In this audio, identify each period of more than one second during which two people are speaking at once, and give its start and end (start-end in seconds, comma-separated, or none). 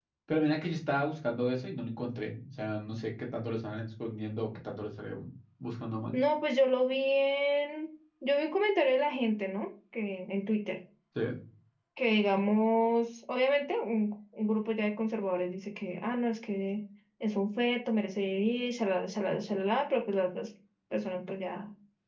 none